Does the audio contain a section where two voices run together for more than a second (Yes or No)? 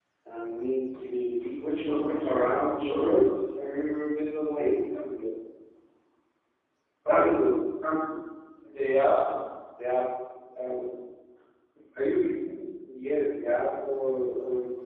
Yes